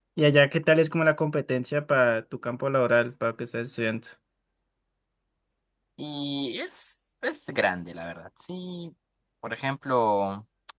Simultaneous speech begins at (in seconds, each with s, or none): none